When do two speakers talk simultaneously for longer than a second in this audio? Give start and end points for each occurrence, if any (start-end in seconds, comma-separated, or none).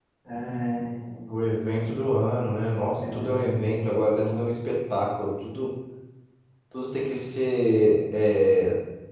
3.0-4.5